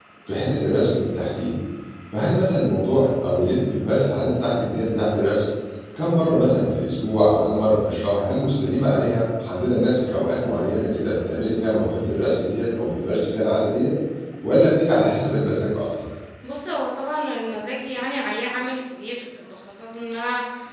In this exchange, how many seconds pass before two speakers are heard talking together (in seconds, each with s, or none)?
none